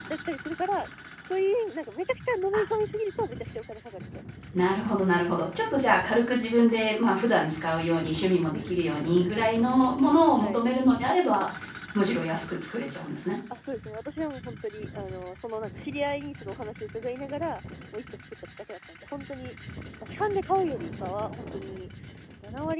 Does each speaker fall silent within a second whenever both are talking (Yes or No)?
Yes